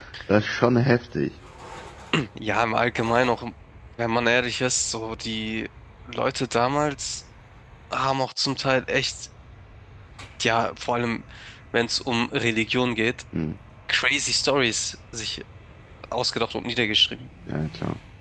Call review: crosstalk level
none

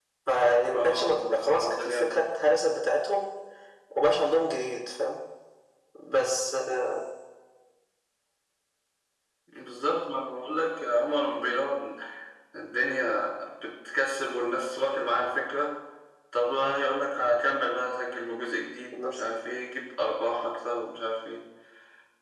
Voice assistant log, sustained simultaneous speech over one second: present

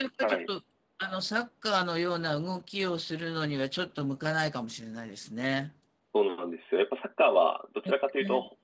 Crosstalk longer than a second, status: none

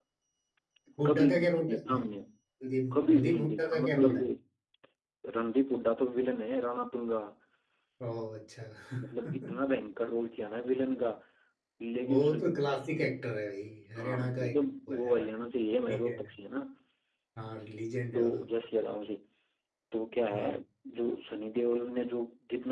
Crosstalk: present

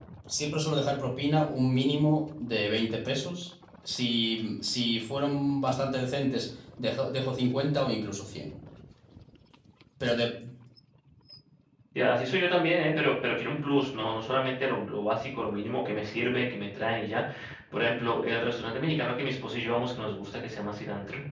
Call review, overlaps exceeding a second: none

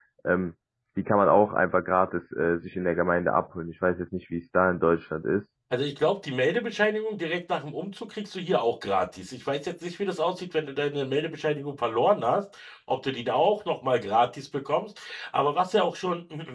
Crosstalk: none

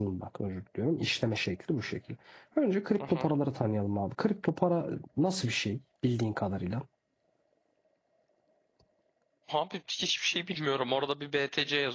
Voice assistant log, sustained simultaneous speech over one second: none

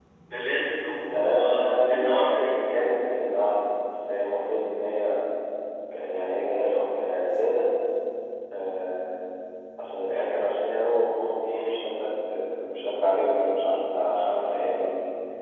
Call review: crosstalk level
present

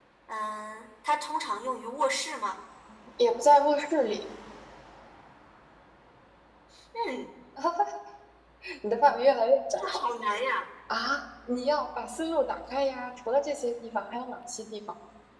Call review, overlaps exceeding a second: none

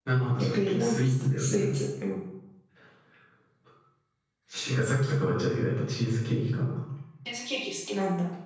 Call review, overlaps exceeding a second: present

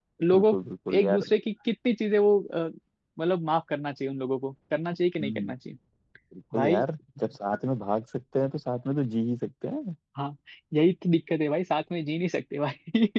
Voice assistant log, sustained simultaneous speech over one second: none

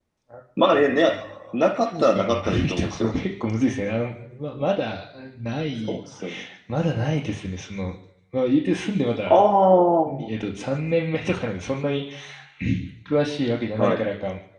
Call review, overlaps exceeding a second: present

